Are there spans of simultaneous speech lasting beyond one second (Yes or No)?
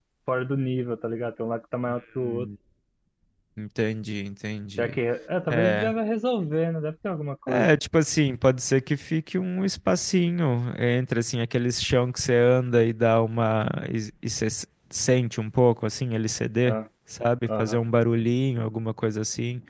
No